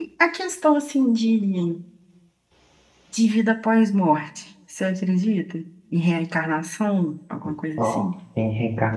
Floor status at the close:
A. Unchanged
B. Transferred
B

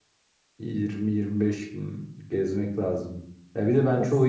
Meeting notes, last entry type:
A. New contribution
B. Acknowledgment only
B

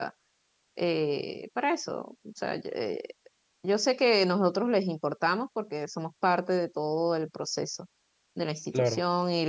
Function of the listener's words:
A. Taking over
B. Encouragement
B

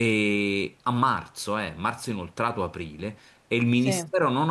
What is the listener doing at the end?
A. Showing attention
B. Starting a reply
A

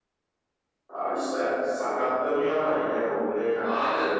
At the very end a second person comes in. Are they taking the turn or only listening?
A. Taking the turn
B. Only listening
A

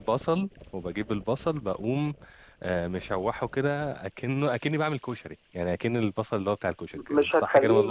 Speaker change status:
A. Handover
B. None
A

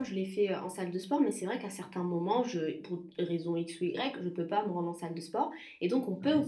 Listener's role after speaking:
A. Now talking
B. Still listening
B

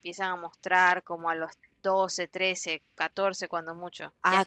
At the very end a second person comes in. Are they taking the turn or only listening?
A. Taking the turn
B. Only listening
A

